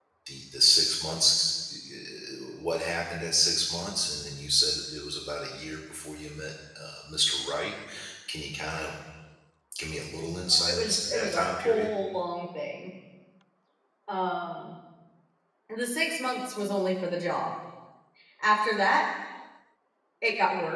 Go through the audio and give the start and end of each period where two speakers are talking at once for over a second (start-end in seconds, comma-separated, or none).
10.5-11.9